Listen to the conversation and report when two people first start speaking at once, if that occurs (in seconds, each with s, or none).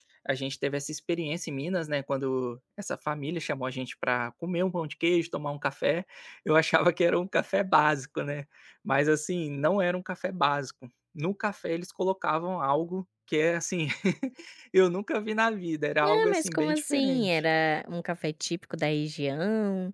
16.0 s